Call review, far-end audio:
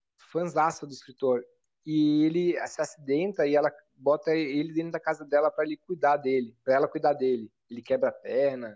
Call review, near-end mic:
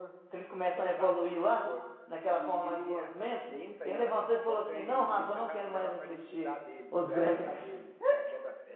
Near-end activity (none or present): present